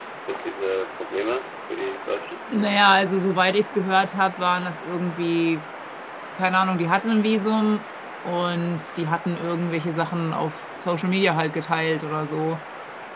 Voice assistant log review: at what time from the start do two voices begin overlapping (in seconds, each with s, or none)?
none